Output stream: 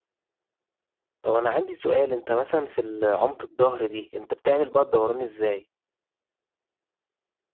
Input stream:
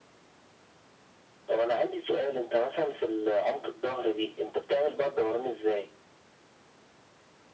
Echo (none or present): present